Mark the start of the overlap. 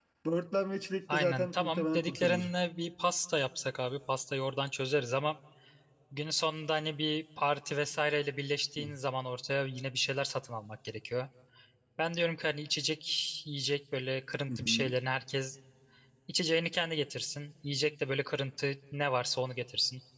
1 s

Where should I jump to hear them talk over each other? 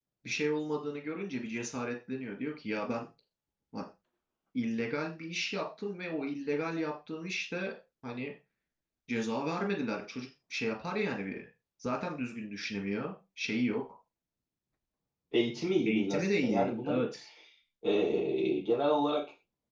16 s

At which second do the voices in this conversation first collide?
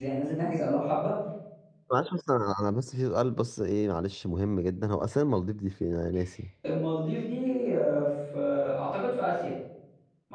none

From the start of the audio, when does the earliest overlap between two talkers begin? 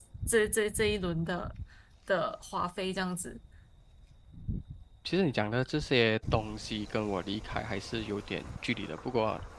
none

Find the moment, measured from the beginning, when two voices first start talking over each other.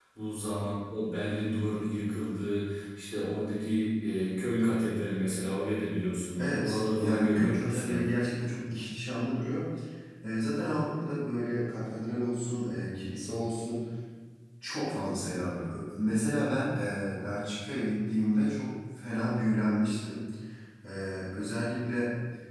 6 s

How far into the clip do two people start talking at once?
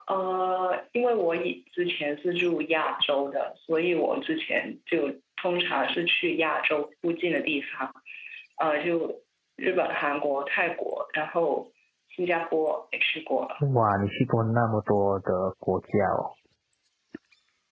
none

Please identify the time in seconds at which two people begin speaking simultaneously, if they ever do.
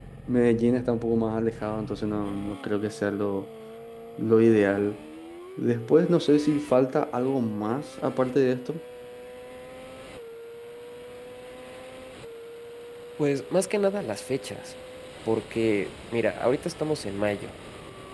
none

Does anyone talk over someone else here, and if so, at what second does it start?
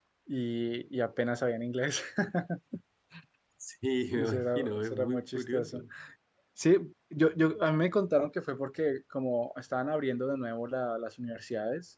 4 s

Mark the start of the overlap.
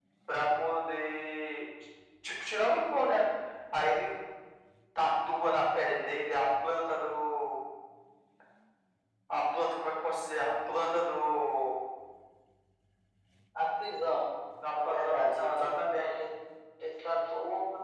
15 s

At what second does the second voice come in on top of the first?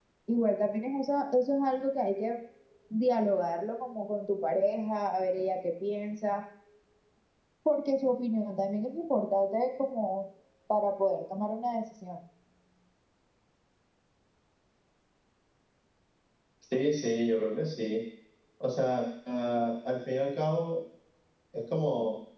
none

